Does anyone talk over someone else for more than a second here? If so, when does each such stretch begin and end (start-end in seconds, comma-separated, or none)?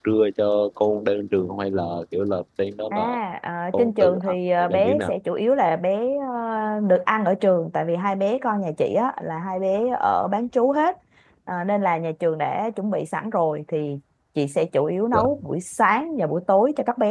3.7-5.1